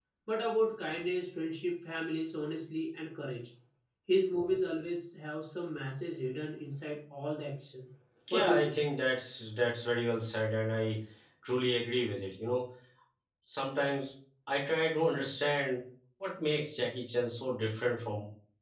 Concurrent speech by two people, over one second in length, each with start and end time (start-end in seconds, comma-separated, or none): none